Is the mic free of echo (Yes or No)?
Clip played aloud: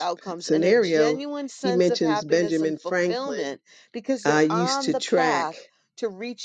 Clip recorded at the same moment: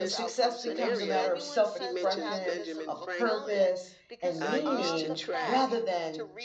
No